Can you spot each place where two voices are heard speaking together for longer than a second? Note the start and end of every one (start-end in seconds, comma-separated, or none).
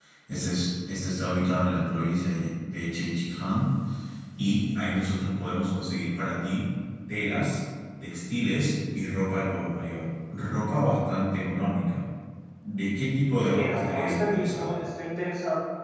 13.4-14.8